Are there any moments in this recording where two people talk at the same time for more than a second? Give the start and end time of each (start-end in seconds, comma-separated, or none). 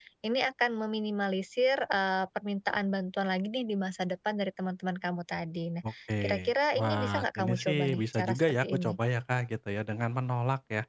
6.2-9.0